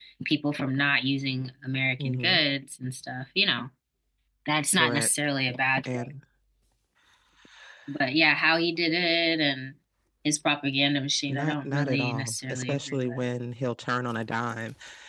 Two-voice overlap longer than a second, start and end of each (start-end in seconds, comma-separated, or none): 11.3-13.2